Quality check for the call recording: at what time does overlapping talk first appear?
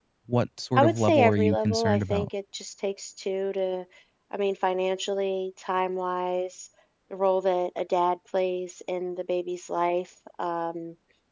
1 s

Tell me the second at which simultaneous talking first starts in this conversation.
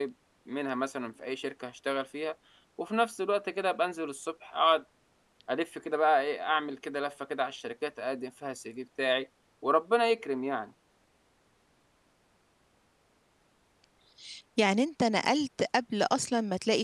none

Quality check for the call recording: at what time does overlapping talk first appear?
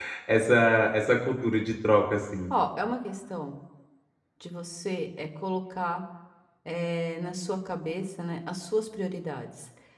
none

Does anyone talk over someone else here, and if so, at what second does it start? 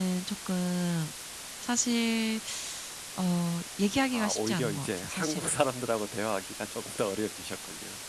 4 s

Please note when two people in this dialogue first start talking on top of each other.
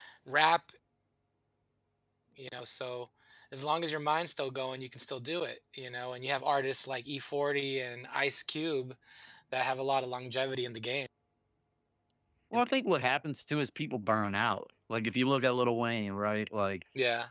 none

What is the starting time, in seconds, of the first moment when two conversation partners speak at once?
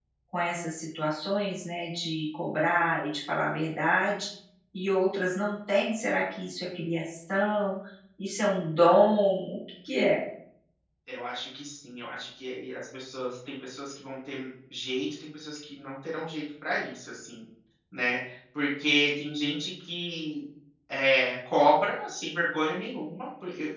none

